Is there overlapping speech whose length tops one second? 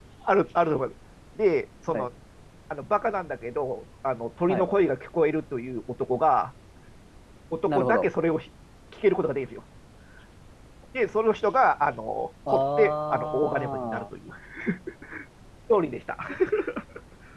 Yes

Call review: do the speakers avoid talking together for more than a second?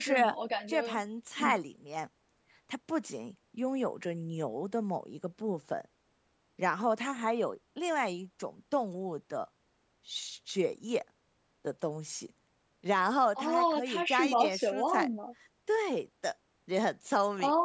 No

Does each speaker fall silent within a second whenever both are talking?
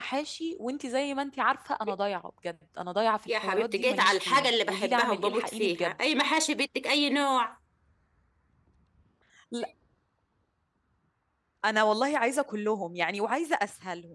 No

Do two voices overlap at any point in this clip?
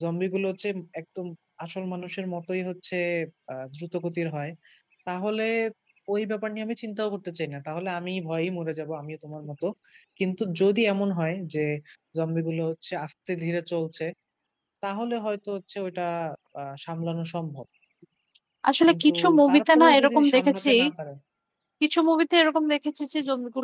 Yes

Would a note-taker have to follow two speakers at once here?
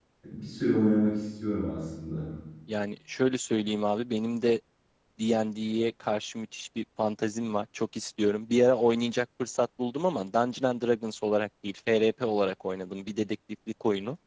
No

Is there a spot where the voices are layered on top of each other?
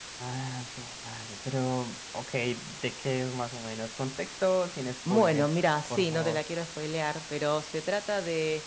Yes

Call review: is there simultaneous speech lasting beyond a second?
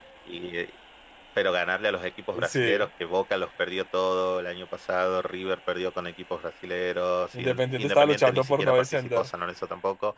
Yes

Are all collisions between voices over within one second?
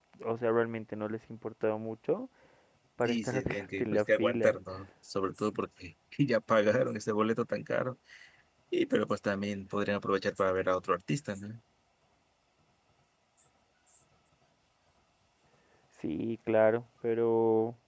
No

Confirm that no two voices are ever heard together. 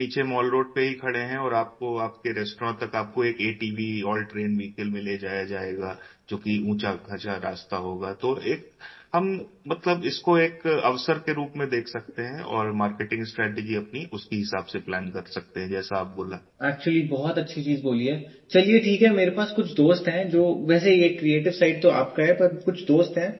Yes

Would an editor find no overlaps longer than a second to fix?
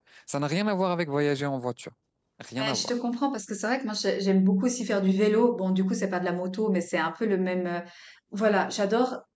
Yes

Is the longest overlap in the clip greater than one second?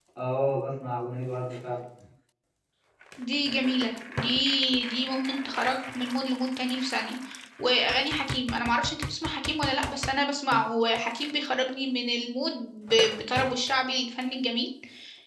No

